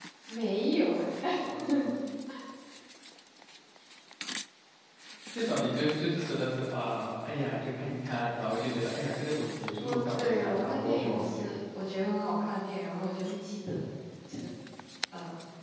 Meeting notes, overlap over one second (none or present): present